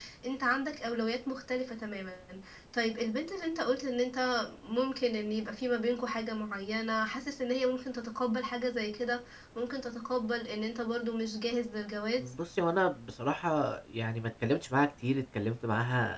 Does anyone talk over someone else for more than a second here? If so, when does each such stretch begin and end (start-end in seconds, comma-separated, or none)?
none